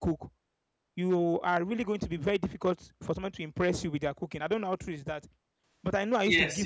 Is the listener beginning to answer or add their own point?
Yes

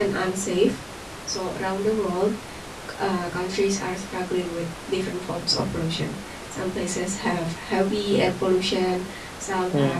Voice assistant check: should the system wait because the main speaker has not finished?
Yes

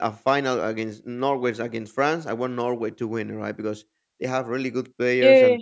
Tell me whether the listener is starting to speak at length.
No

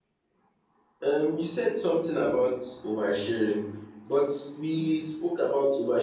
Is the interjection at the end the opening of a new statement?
No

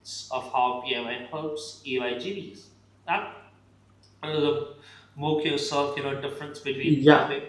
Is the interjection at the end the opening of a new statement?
Yes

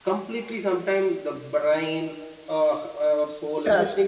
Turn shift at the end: No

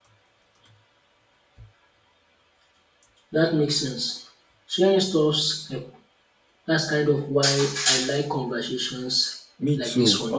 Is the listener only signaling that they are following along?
No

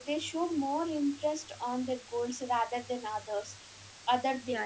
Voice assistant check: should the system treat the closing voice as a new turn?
Yes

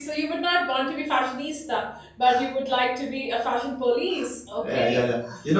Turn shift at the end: Yes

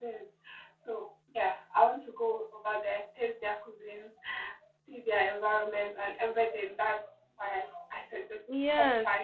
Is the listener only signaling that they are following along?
No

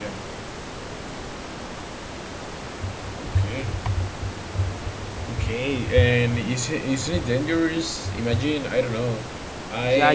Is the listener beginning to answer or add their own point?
Yes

